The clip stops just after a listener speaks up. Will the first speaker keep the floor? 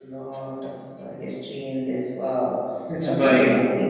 Yes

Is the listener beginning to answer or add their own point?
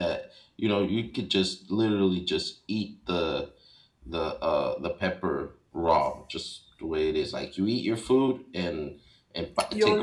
Yes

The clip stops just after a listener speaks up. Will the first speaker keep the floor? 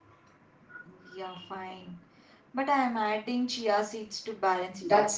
No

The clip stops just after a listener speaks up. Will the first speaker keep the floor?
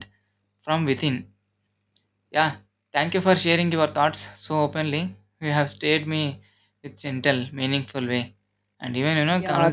No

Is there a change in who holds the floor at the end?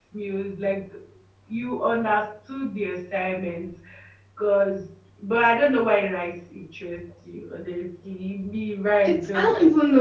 Yes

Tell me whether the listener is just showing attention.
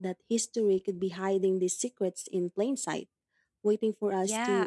No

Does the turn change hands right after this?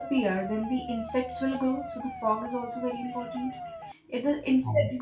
No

